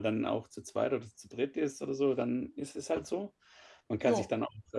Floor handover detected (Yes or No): No